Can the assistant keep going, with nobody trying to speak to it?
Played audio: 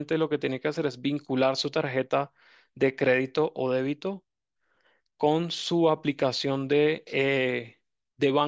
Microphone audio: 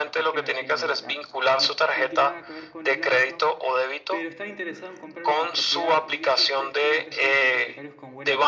No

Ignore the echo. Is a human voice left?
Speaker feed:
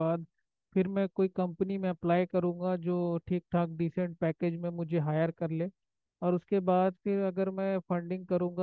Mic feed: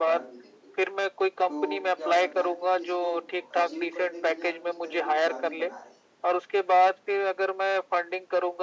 Yes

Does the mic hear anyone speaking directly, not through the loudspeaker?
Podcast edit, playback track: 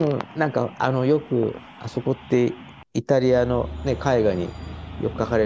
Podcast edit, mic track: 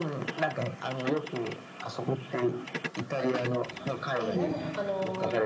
Yes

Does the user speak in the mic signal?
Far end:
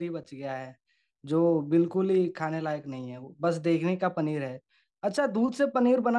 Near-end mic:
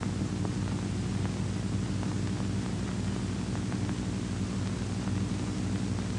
No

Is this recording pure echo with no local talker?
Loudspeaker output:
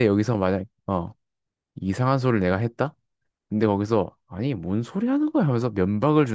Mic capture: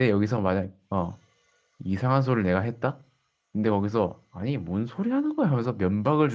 Yes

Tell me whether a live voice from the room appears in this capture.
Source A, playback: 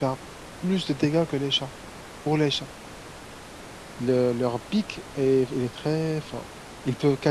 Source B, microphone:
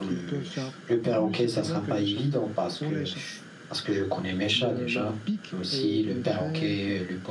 Yes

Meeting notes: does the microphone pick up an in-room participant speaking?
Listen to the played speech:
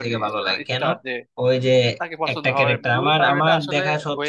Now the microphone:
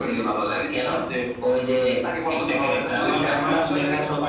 Yes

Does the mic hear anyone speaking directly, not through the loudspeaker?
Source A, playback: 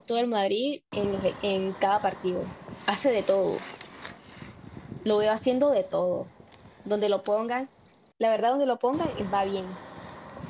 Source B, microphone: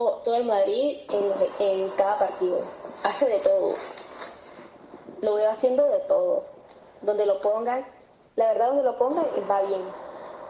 No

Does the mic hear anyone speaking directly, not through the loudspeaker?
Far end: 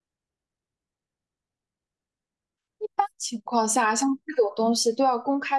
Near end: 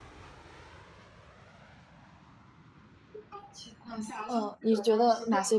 Yes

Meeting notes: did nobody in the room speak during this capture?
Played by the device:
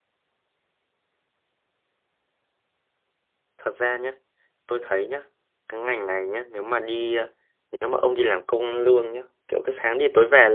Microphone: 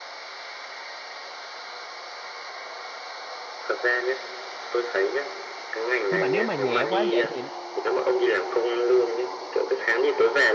No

